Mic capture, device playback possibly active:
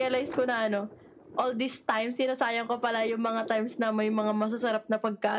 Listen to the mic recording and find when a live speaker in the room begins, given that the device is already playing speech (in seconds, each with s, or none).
none